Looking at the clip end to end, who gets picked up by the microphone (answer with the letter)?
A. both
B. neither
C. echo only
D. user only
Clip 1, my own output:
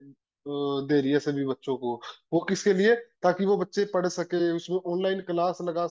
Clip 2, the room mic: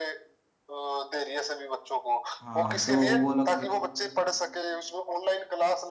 A